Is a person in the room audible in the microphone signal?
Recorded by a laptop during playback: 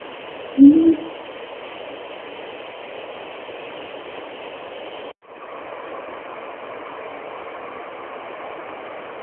Yes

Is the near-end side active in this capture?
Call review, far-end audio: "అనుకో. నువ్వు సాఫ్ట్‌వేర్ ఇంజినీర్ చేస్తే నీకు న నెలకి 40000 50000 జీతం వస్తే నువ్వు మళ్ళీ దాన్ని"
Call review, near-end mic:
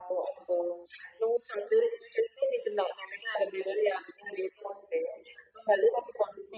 No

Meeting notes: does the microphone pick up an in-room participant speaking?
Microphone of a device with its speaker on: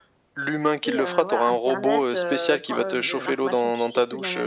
Yes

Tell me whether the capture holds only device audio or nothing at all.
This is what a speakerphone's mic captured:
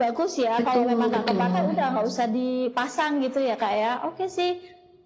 No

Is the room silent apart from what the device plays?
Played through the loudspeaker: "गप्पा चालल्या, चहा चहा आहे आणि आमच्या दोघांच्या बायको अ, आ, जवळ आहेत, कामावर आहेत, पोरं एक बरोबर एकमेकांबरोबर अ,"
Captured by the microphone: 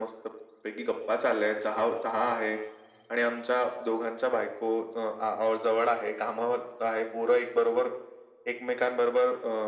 Yes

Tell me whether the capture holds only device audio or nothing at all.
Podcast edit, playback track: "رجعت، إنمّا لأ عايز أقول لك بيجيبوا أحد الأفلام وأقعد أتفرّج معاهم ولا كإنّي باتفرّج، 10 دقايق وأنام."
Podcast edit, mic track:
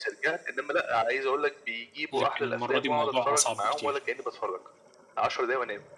No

